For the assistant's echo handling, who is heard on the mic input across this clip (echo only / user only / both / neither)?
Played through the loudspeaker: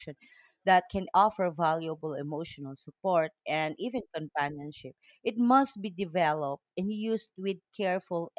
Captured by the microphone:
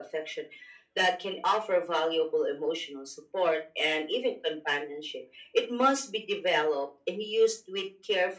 echo only